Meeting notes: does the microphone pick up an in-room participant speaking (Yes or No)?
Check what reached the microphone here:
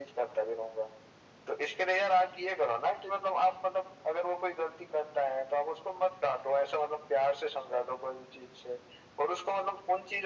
No